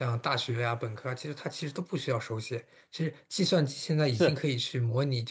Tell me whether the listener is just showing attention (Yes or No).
Yes